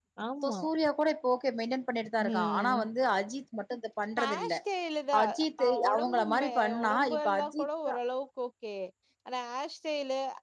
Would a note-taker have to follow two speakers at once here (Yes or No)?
Yes